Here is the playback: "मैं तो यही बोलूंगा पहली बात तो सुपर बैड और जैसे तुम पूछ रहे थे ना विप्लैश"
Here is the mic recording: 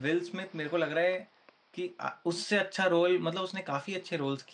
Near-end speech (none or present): present